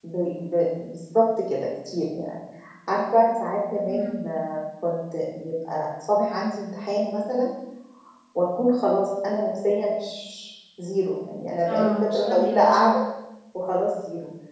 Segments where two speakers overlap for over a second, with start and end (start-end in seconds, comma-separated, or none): 11.7-12.9